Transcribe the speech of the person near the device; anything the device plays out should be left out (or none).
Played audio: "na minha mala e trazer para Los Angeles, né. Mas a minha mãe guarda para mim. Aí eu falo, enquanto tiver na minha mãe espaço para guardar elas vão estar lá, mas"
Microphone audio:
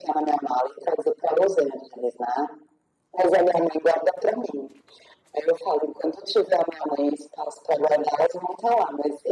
none